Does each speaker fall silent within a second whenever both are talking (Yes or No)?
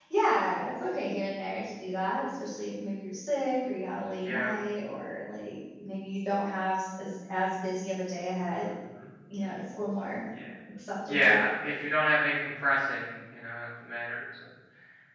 Yes